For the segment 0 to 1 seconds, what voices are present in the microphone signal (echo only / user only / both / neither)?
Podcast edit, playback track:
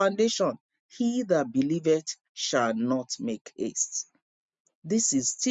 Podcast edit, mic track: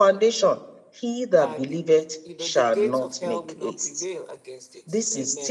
echo only